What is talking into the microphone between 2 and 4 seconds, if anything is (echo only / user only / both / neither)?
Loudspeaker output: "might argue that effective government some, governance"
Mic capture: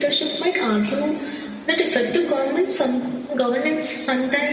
echo only